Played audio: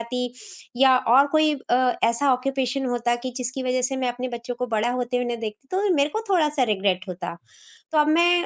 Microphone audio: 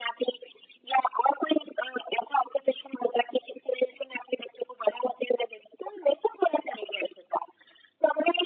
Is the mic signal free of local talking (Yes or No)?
Yes